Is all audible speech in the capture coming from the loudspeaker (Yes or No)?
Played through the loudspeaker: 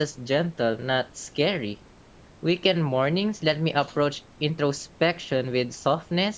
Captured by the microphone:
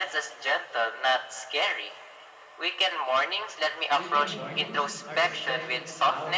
No